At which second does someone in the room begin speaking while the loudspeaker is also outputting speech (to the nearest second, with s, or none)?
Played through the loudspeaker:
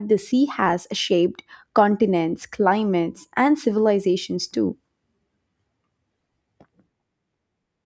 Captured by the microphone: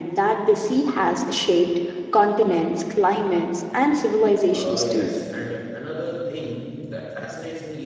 5 s